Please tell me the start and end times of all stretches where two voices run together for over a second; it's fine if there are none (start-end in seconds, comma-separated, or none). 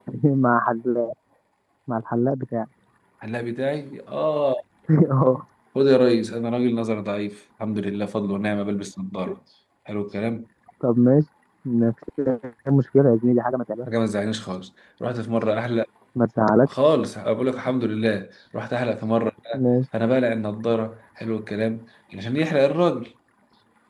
none